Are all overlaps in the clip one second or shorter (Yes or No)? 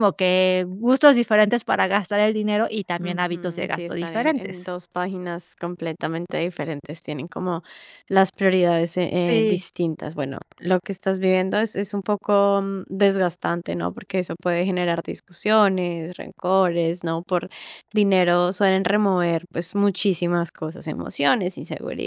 No